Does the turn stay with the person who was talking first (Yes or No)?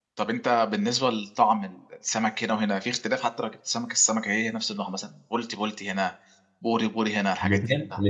No